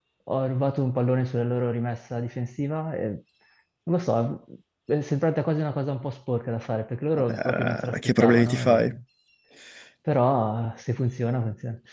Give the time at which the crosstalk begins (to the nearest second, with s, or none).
7 s